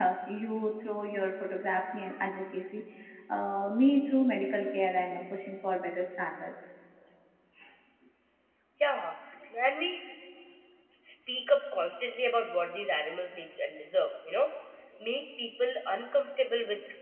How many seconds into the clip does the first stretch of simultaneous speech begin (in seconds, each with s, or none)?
none